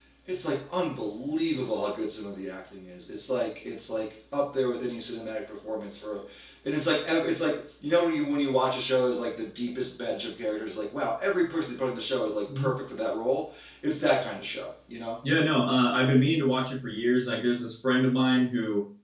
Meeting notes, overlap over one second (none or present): none